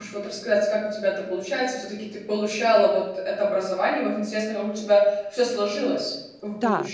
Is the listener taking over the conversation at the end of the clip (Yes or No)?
Yes